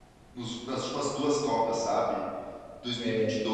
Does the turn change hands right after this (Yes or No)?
No